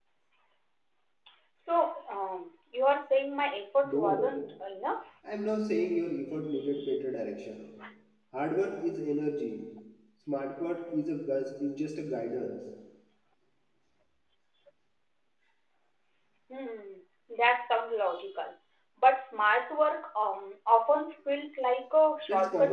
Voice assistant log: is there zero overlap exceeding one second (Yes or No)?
Yes